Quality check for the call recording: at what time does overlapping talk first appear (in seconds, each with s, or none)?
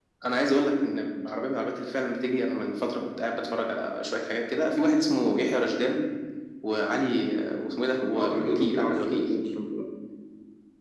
8.1 s